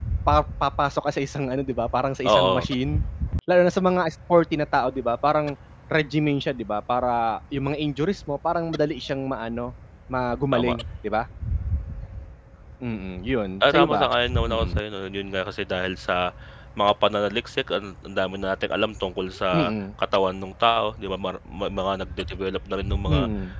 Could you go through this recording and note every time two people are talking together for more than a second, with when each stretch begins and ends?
none

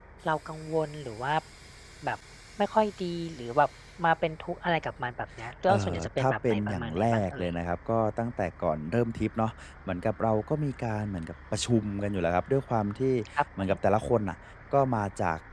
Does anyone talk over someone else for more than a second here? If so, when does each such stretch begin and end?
5.7-7.5

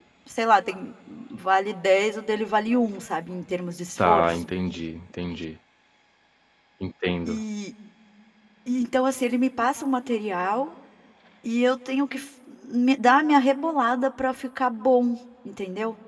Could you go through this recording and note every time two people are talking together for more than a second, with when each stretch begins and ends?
none

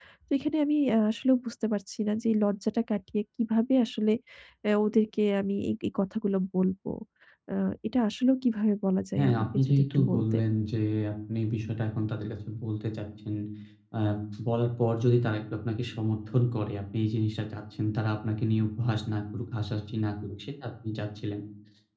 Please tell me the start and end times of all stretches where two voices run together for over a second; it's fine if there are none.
9.2-10.4

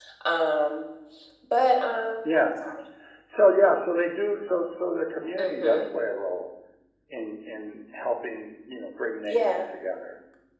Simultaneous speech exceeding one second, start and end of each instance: none

